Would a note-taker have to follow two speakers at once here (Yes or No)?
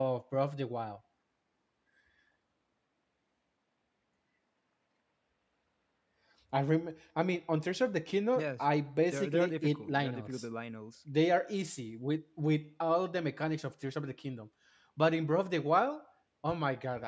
Yes